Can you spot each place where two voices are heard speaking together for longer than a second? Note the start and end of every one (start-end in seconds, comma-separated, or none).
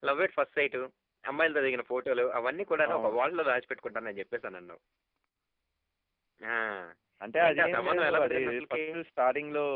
7.4-8.8